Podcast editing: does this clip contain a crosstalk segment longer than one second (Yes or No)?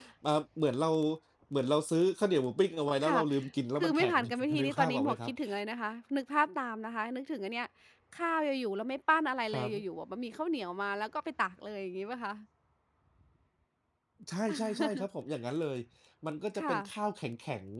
Yes